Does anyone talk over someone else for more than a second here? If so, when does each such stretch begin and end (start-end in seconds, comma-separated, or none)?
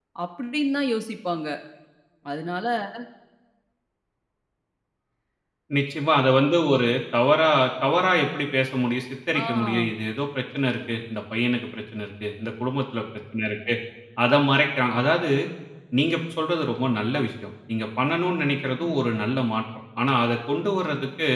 none